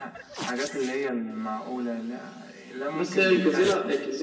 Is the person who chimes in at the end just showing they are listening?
No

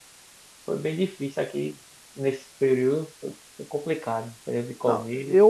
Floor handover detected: Yes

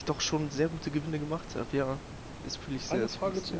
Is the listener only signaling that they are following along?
No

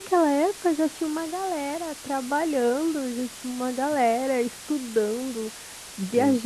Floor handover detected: No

